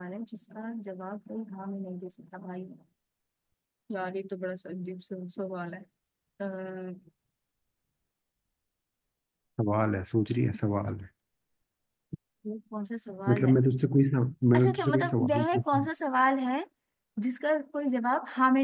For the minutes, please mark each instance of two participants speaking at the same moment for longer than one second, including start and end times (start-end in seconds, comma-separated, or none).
14.5-15.9